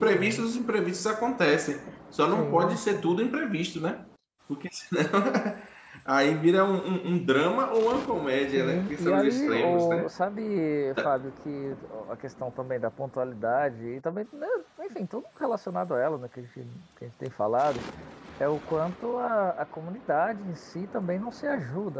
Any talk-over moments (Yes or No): Yes